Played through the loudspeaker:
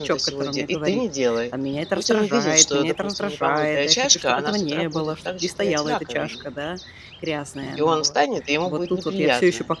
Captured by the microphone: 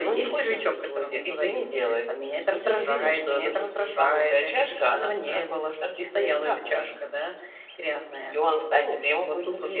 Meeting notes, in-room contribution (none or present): none